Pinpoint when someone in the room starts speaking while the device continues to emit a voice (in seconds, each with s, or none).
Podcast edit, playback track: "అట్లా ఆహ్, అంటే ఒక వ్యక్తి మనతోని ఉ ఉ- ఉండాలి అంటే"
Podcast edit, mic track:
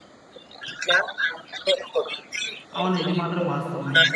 2.8 s